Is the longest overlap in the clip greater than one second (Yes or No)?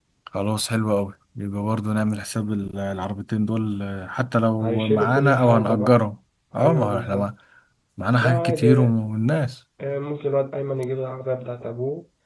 Yes